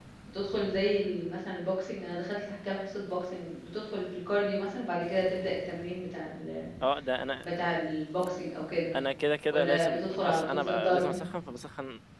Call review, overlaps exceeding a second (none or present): present